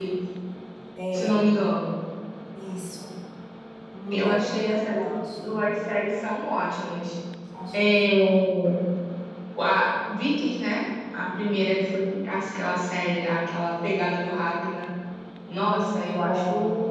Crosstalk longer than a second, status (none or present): present